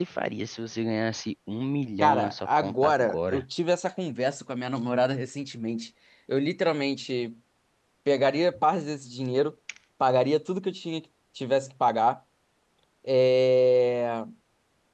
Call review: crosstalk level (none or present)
present